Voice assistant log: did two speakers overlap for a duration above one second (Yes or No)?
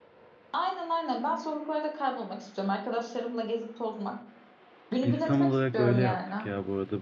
Yes